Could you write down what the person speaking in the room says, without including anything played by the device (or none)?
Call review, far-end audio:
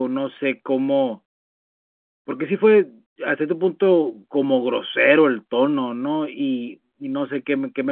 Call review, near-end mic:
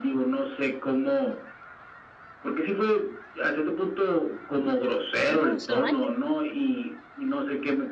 Ah, ¿hace un año?